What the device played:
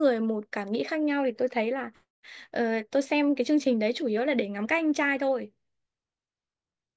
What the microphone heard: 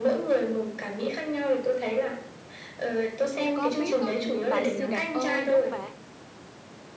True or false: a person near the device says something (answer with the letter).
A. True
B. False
A